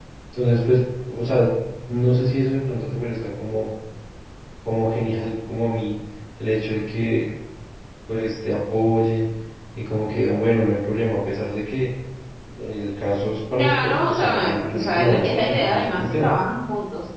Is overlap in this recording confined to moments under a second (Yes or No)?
No